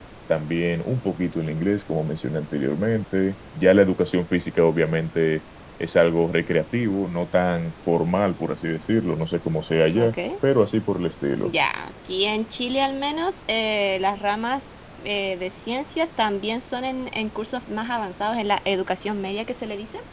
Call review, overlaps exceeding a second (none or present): none